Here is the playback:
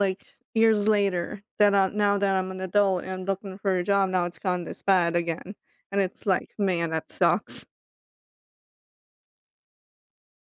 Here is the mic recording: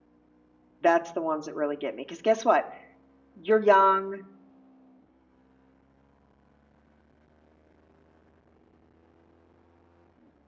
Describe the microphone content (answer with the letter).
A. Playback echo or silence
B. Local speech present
B